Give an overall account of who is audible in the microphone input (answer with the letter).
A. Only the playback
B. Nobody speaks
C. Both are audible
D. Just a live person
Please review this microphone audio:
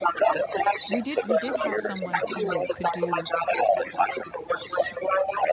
C